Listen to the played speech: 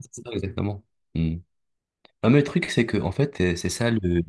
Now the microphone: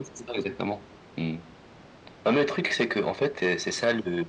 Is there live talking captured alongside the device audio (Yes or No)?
No